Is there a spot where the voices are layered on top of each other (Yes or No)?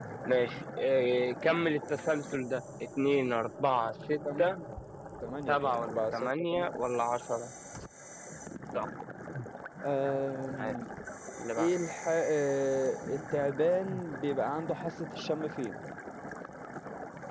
Yes